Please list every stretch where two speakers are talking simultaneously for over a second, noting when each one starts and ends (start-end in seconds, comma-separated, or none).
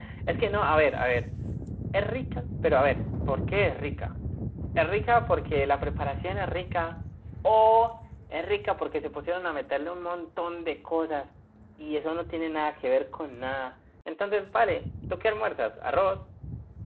none